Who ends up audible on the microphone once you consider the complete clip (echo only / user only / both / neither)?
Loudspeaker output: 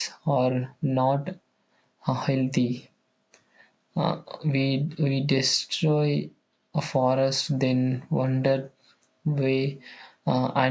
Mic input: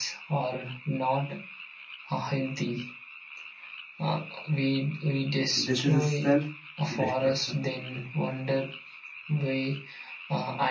both